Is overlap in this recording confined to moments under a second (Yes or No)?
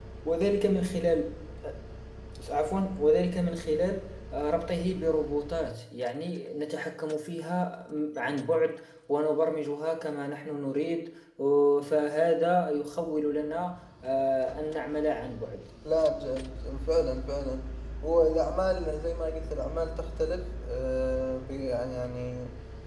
Yes